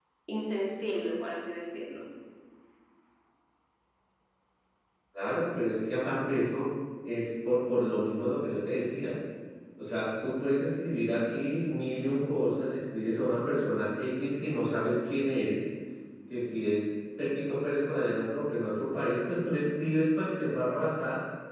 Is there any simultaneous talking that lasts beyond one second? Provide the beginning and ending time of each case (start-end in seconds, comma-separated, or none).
none